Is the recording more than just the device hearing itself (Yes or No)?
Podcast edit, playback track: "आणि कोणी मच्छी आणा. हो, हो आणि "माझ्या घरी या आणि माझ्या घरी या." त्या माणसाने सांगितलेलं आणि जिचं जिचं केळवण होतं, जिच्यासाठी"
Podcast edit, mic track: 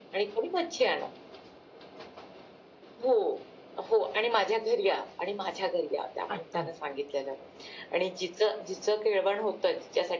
Yes